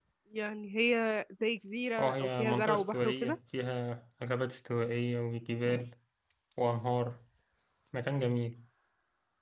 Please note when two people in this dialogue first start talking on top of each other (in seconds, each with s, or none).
2.0 s